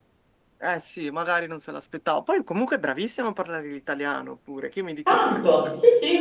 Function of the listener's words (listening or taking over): taking over